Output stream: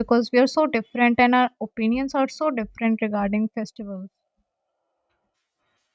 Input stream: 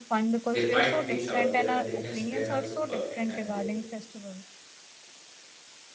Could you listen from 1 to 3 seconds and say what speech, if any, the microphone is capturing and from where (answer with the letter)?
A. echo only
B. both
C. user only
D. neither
B